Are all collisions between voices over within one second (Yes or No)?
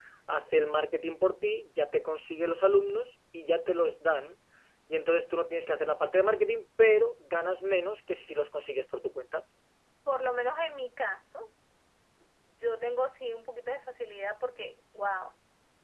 Yes